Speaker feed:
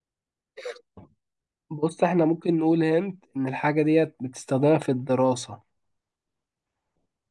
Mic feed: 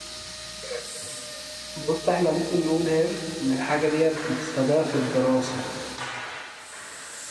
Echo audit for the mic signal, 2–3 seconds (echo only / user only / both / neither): echo only